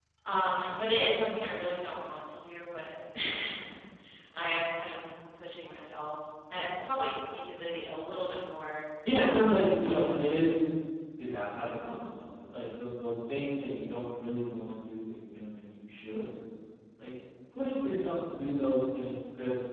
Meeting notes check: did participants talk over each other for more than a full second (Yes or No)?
Yes